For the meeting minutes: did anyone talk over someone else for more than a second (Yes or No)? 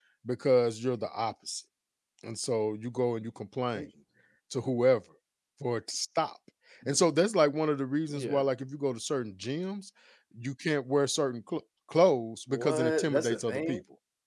Yes